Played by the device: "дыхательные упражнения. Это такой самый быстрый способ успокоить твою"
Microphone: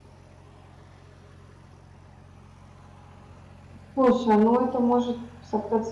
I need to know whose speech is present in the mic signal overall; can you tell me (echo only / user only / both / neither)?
user only